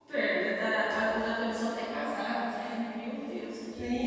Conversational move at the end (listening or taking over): taking over